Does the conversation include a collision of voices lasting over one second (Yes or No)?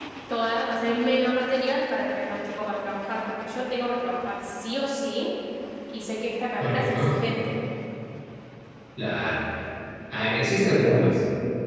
No